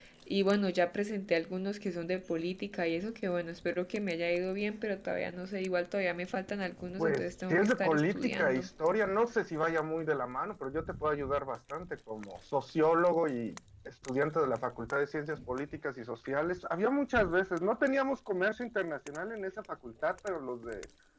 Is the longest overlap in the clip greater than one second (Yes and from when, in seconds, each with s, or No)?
Yes, from 7.0 s